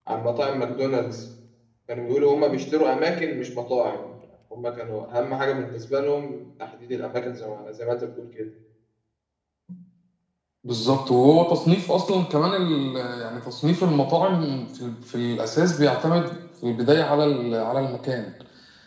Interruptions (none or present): none